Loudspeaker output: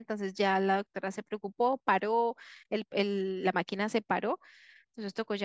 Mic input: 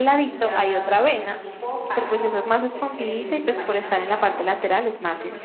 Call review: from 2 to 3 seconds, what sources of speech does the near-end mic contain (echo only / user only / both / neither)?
both